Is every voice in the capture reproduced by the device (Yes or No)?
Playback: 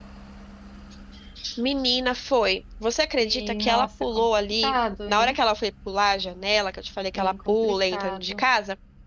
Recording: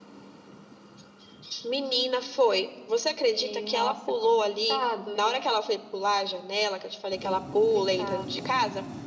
Yes